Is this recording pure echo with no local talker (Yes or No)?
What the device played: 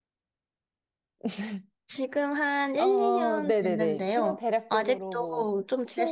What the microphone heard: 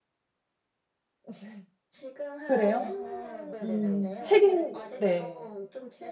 No